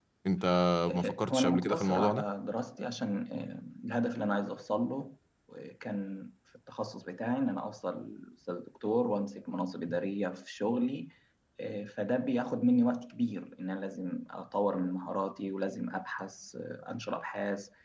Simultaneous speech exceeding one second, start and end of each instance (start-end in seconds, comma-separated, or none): 0.9-2.2